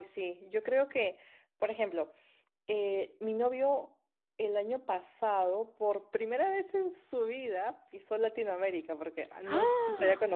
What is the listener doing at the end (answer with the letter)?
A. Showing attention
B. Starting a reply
A